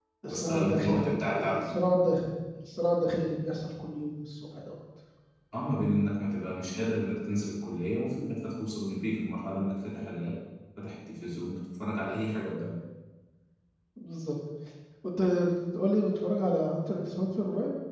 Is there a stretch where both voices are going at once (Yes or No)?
Yes